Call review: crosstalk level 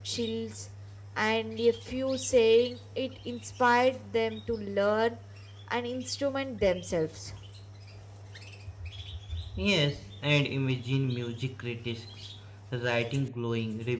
none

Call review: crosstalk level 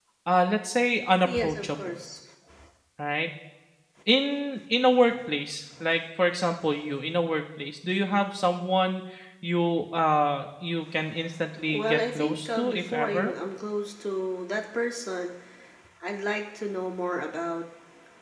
present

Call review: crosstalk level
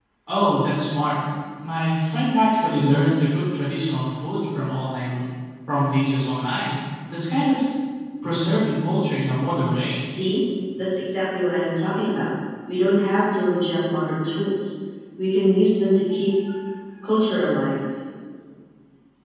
none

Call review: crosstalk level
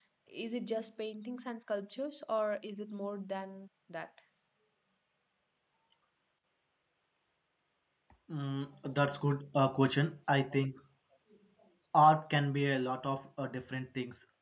none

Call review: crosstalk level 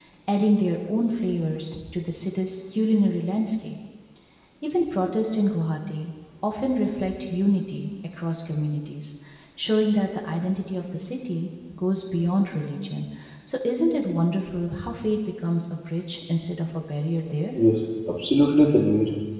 none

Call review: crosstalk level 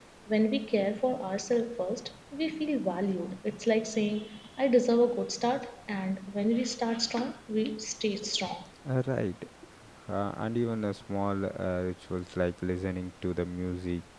none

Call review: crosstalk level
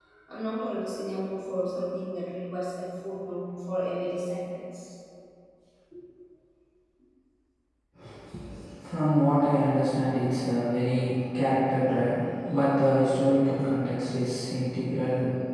none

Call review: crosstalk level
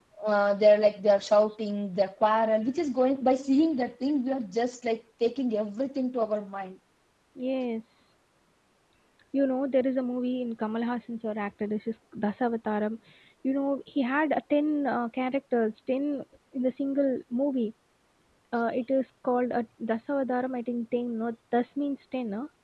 none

